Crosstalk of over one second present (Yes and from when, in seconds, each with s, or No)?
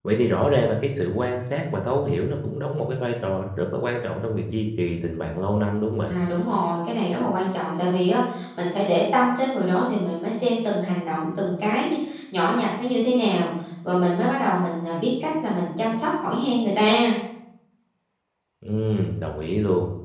No